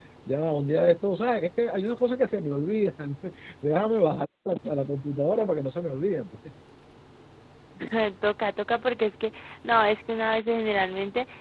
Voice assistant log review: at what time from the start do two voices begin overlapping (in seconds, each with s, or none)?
none